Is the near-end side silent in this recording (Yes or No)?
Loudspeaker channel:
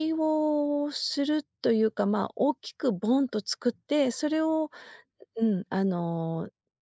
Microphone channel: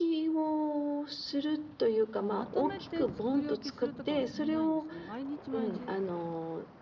No